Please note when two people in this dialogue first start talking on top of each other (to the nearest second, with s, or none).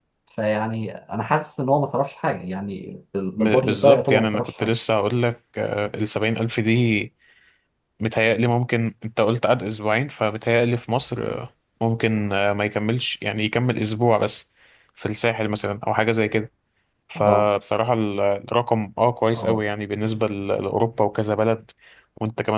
3 s